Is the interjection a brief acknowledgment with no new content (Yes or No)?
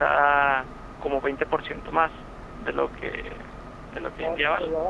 No